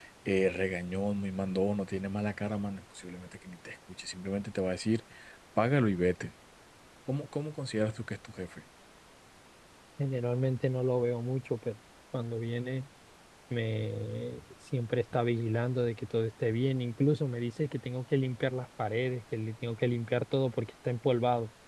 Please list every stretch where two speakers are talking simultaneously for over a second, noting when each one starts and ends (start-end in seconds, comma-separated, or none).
none